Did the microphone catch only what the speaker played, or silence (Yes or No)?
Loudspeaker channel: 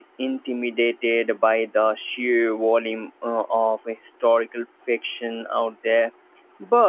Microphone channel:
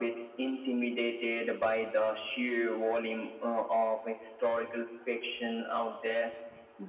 Yes